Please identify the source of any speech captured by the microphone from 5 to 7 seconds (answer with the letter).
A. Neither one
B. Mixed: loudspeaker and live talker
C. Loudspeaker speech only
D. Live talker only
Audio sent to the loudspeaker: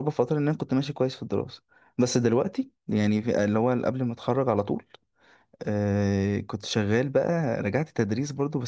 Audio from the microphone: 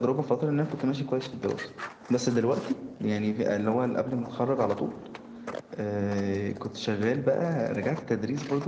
C